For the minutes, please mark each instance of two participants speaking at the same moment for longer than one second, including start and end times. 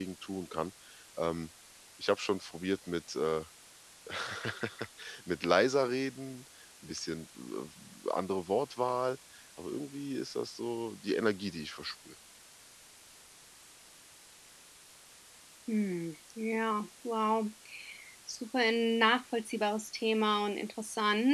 none

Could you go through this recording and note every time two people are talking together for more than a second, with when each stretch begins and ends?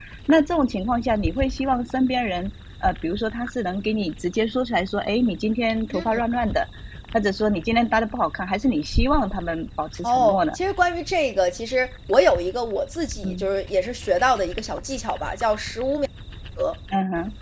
none

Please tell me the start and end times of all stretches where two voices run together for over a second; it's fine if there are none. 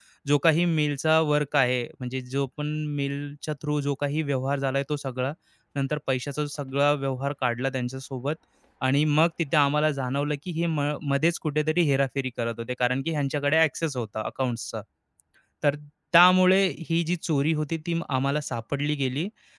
none

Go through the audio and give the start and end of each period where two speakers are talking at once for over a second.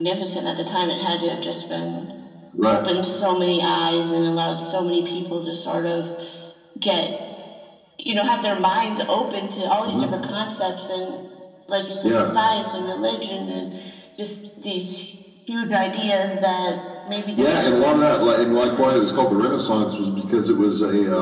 17.4-18.9

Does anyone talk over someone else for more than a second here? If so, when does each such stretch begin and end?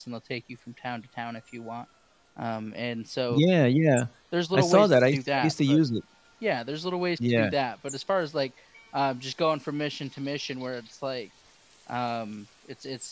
4.5-5.8

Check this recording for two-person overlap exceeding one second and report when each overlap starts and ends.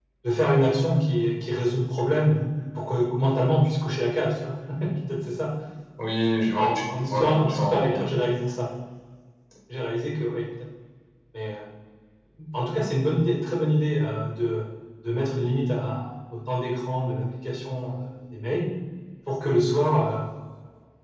6.4-8.0

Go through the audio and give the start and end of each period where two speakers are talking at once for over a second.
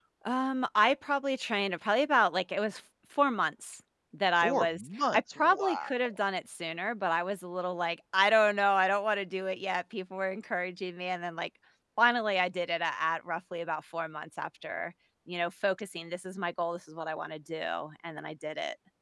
4.4-5.9

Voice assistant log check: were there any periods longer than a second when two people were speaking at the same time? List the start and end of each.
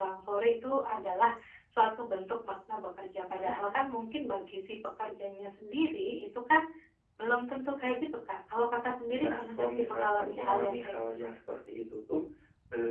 9.2-11.1

